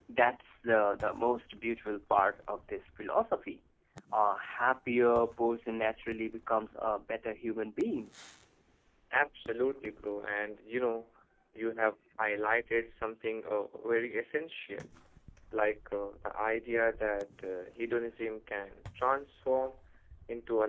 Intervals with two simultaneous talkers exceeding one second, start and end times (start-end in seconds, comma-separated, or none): none